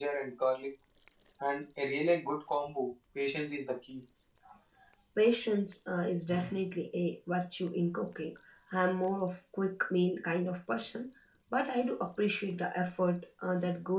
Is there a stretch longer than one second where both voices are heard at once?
No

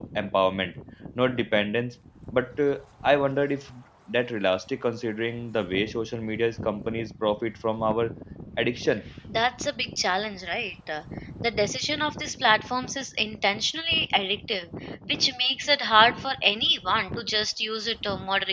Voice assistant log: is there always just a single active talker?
Yes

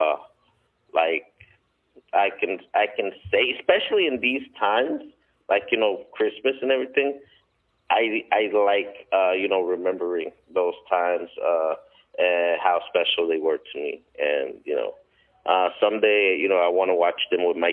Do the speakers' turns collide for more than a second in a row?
No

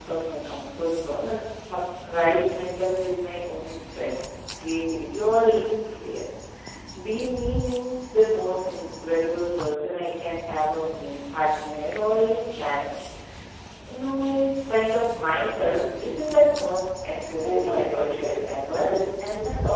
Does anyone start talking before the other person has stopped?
Yes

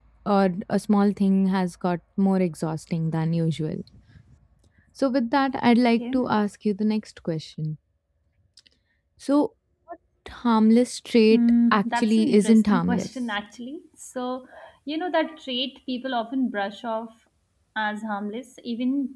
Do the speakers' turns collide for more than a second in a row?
Yes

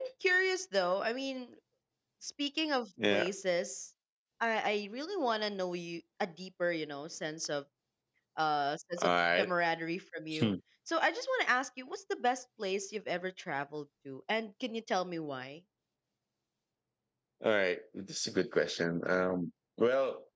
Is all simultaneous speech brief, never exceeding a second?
Yes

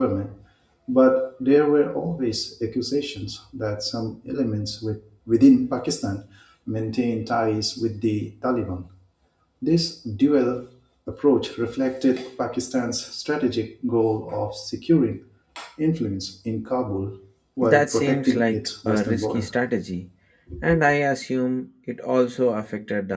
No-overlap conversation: No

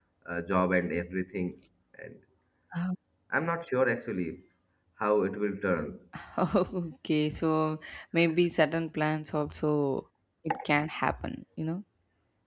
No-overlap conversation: Yes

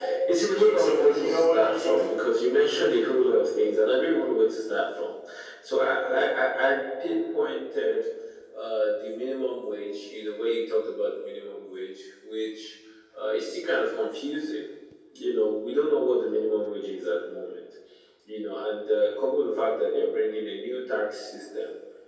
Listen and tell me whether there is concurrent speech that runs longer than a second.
Yes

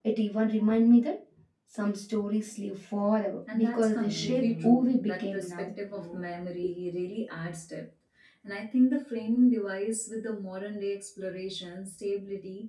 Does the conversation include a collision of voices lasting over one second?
Yes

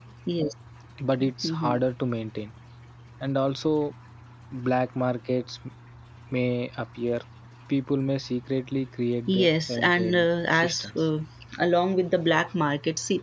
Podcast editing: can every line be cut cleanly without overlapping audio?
No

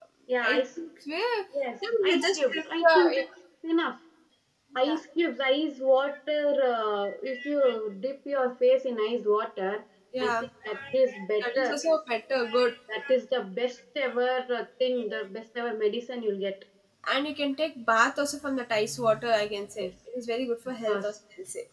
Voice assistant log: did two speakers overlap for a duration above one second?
Yes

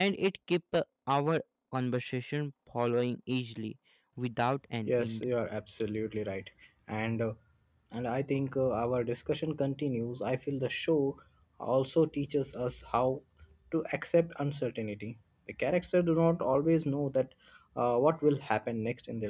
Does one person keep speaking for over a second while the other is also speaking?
No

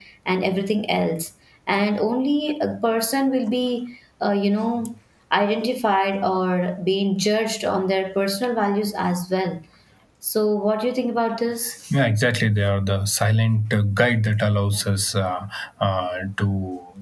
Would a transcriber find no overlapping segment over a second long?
Yes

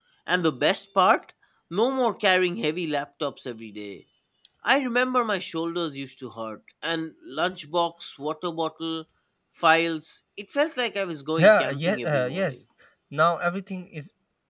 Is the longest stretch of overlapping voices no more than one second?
No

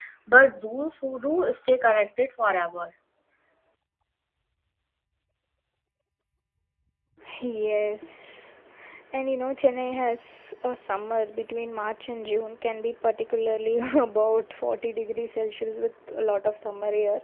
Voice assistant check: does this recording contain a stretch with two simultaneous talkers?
No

